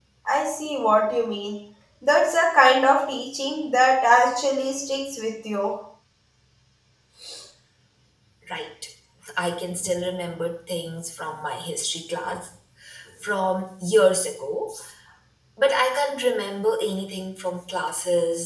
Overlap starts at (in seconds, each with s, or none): none